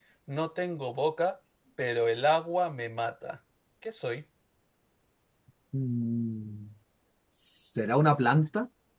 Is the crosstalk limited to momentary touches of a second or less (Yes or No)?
Yes